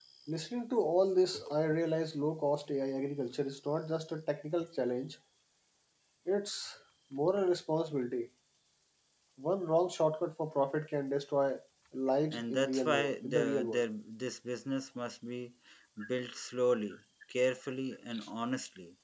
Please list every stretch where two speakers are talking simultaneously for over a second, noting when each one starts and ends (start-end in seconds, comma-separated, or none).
12.3-13.8